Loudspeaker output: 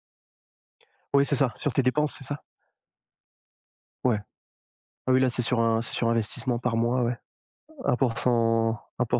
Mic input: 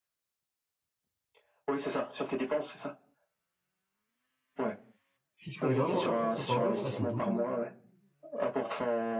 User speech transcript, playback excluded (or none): s'ils font vraiment un pour cent par jour, ça fait beaucoup.